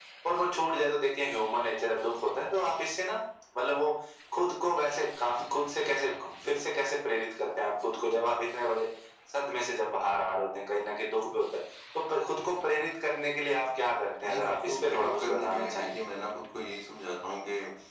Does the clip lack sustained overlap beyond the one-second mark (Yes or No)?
No